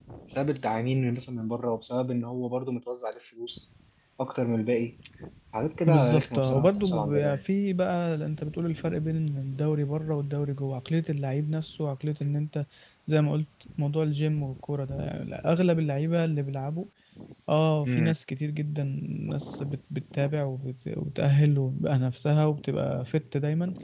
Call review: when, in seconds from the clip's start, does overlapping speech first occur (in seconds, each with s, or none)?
5.9 s